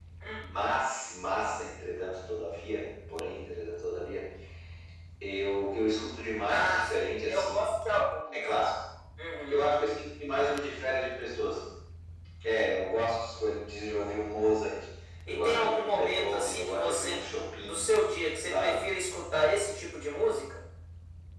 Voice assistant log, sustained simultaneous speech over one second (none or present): present